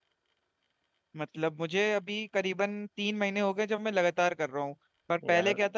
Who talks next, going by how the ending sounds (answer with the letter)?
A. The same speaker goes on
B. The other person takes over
A